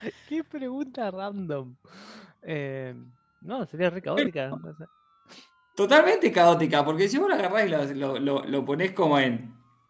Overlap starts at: none

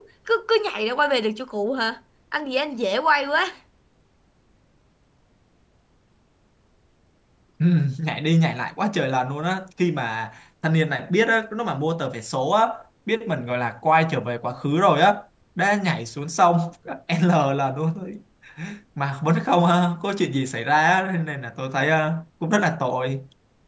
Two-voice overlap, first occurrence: none

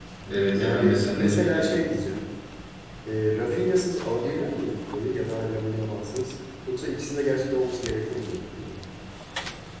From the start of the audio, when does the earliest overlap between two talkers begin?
0.6 s

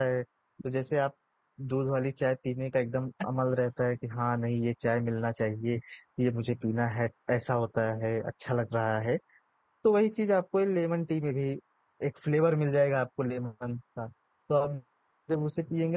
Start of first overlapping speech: none

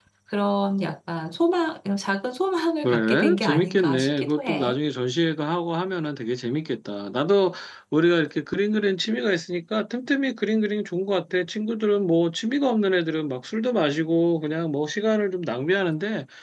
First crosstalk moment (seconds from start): 2.8 s

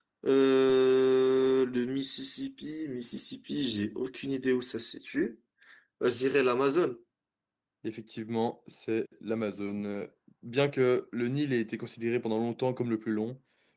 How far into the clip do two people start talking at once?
none

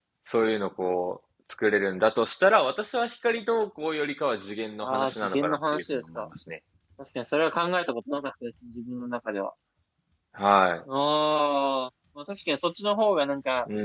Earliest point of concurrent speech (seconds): 4.8 s

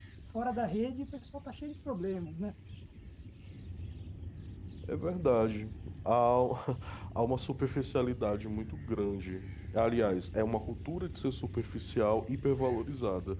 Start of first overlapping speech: none

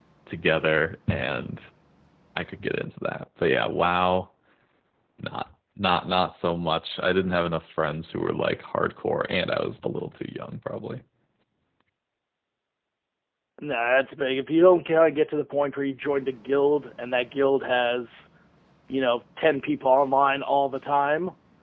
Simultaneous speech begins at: none

